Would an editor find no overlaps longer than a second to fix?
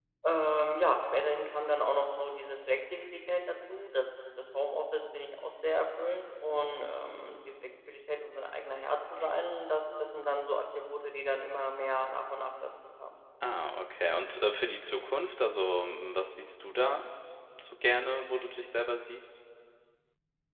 Yes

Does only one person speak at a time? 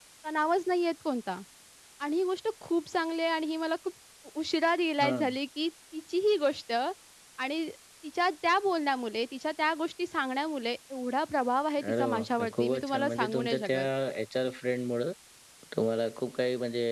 No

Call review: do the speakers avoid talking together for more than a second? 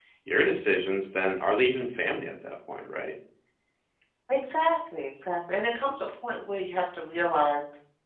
Yes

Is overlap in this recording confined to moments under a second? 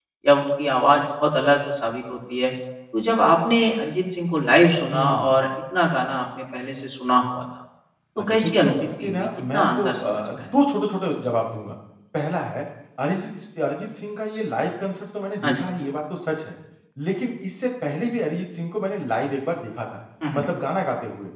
No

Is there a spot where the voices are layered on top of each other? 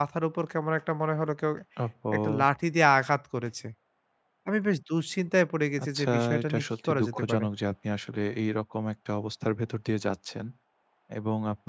Yes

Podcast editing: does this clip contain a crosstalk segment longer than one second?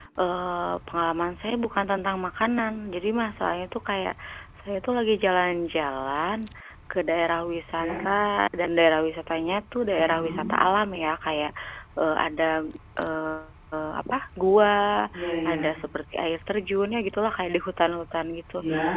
No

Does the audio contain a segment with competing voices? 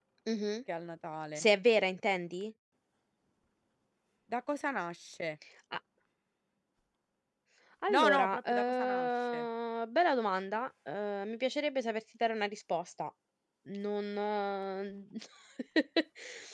Yes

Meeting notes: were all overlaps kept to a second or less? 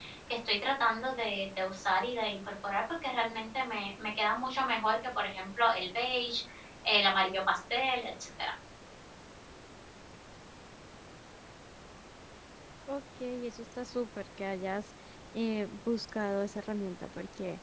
Yes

